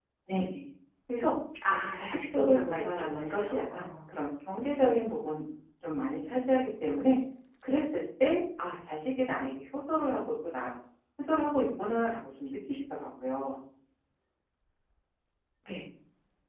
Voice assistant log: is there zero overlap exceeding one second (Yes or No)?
No